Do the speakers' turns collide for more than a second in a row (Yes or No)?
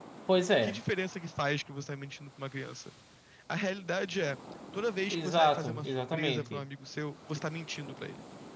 Yes